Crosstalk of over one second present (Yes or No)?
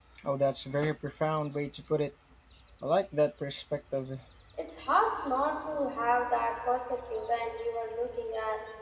No